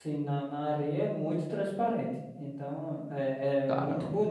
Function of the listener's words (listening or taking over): listening